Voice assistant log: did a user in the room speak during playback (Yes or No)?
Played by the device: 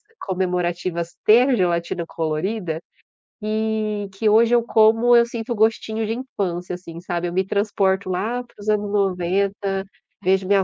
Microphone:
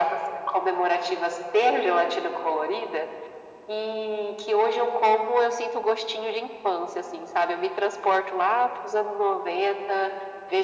No